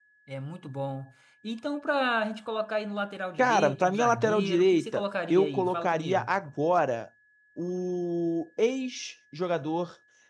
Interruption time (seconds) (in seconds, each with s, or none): 3.4 s